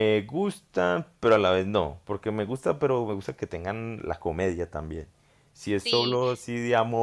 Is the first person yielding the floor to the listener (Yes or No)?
No